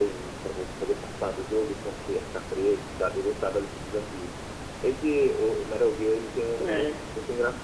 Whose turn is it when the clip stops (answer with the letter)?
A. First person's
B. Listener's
A